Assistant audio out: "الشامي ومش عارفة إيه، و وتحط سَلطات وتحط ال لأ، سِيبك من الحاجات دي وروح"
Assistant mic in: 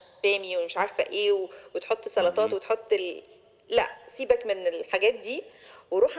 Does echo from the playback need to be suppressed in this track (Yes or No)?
Yes